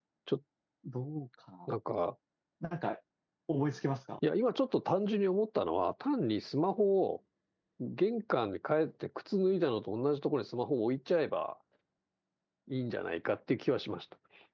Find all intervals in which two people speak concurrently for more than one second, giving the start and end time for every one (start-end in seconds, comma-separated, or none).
none